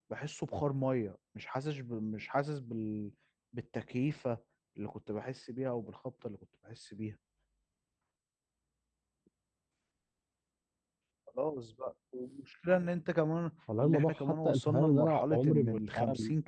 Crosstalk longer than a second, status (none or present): present